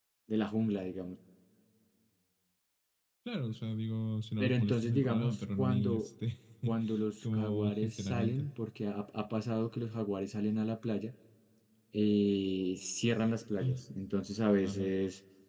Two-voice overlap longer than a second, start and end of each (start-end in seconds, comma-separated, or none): 4.4-6.1, 7.2-8.5